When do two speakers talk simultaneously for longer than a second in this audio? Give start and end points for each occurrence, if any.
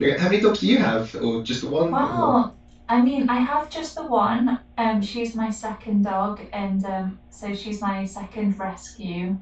none

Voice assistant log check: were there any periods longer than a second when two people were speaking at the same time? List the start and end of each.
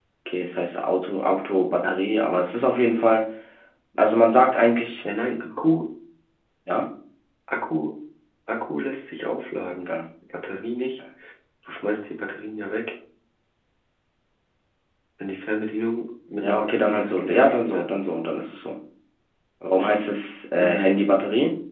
16.4-17.9

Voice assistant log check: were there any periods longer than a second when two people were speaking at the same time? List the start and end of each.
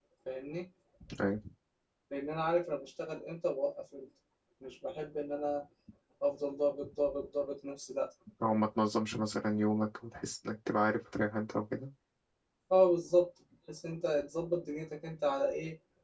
none

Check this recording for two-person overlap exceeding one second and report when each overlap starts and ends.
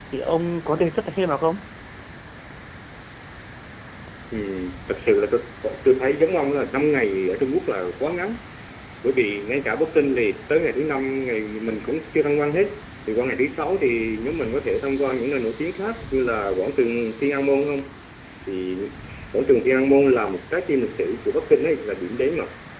none

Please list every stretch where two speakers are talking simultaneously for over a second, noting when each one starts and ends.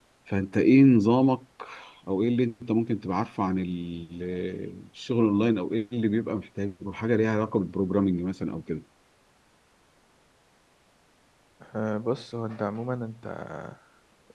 none

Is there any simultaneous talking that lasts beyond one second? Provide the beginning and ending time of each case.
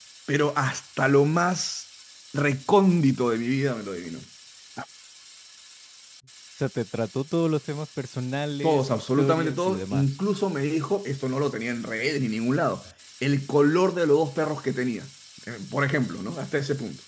8.6-10.1

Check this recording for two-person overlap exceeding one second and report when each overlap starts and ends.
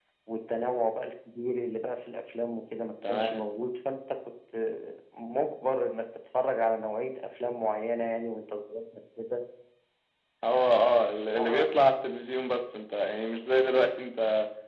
none

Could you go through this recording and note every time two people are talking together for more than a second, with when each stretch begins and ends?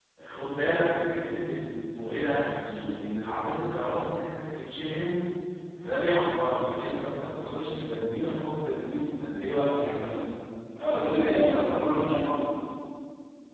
10.8-12.5

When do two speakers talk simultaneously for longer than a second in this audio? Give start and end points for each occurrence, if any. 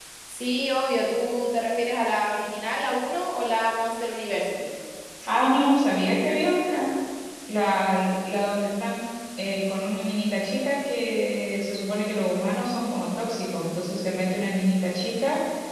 none

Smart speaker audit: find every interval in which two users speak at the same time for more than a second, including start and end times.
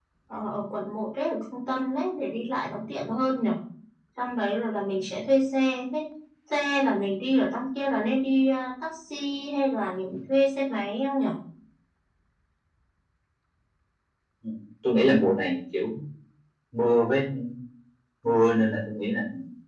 none

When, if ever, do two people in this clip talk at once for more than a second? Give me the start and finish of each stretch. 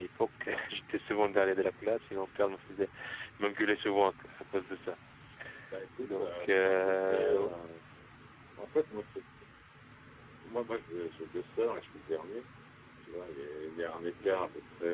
6.0-7.5

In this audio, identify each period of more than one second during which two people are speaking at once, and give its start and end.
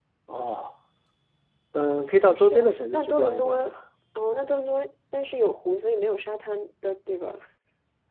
2.4-3.6

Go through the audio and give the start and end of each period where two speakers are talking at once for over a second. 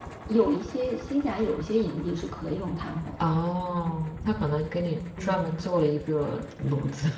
none

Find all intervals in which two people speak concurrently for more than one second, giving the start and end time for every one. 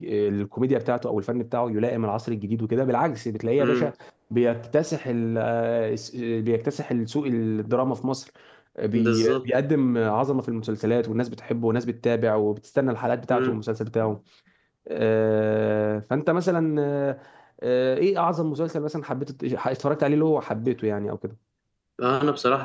none

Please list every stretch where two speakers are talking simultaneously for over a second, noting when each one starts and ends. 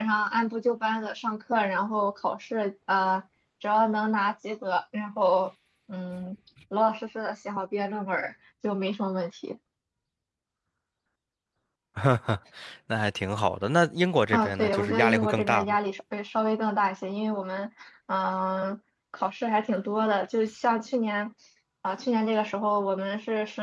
14.3-15.8

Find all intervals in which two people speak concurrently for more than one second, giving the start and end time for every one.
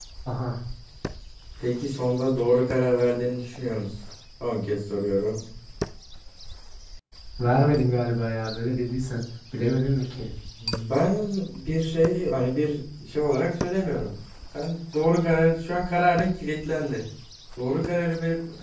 none

